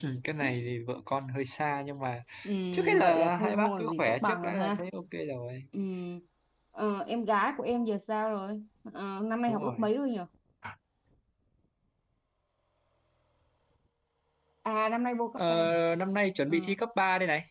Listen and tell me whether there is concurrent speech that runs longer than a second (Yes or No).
Yes